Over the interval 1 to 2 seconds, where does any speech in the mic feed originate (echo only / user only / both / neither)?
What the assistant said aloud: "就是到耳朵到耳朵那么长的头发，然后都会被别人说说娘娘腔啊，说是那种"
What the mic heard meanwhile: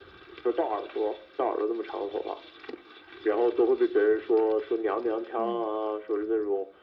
echo only